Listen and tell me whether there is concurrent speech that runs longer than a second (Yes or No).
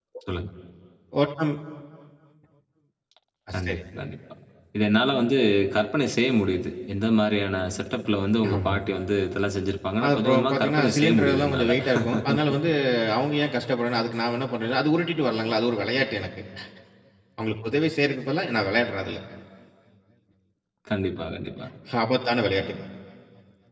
Yes